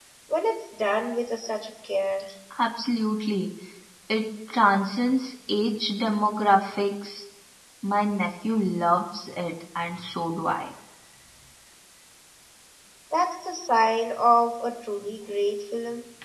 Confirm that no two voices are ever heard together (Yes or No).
Yes